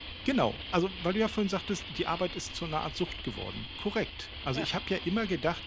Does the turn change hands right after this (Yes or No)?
No